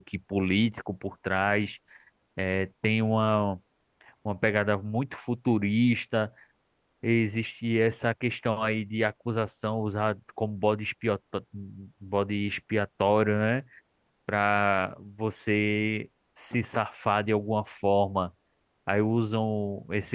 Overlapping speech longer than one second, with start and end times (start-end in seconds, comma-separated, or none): none